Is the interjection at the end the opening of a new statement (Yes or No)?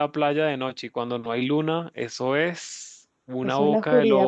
Yes